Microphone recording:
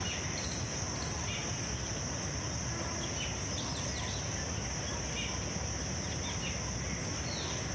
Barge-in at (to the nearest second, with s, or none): none